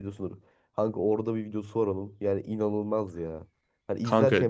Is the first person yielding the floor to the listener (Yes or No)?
No